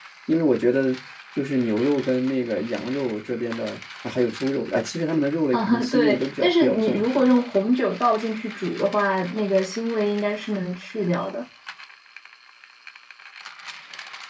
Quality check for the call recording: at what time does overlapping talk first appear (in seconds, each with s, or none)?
5.5 s